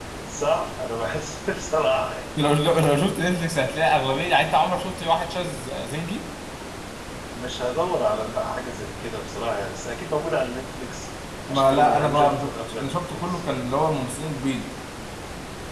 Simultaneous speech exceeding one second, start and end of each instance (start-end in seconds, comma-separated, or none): 11.5-13.4